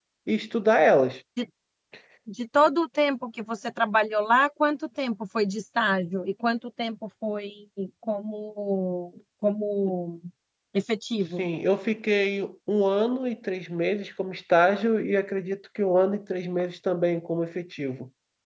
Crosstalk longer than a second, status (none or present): none